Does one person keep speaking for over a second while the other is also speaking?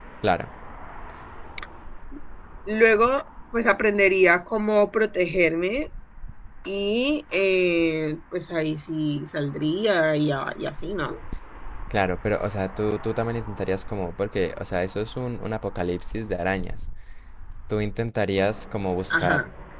No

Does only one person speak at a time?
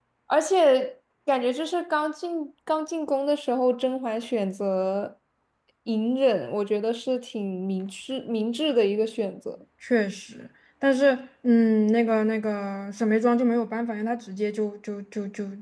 Yes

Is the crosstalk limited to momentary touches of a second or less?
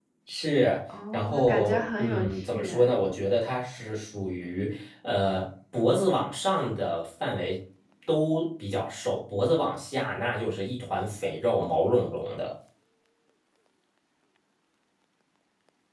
No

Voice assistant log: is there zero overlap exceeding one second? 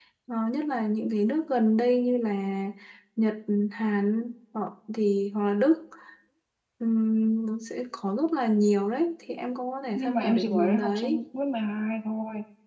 No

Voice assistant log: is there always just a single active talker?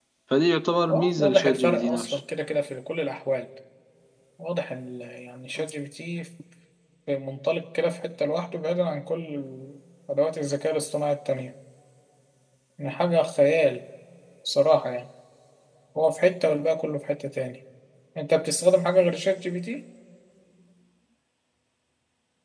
No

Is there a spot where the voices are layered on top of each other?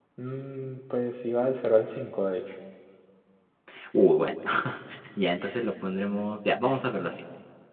No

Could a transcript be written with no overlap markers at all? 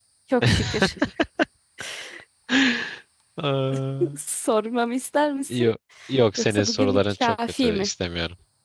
No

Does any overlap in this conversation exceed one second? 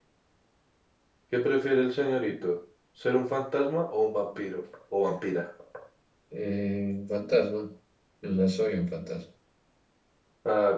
No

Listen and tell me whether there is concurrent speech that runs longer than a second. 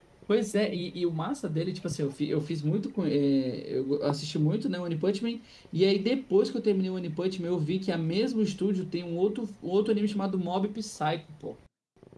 No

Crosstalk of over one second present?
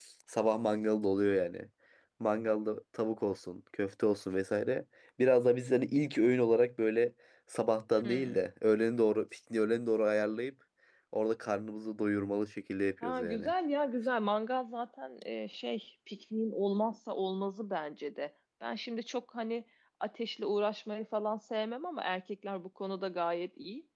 No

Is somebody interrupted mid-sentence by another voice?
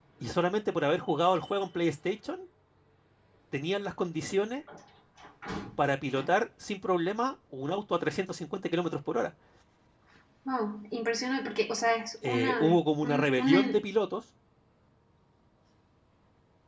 Yes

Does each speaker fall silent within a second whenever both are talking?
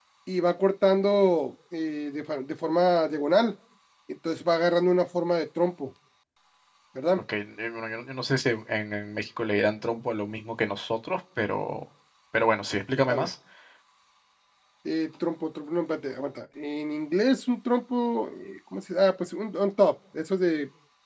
Yes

